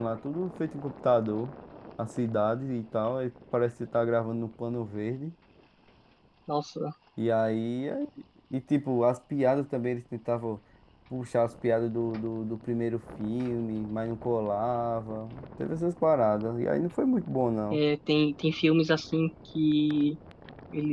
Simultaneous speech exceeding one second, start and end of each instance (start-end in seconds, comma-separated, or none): none